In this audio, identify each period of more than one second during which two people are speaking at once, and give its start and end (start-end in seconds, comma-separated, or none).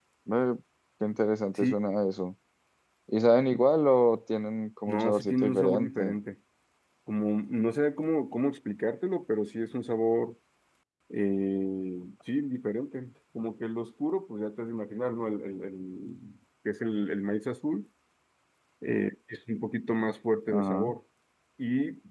4.9-6.2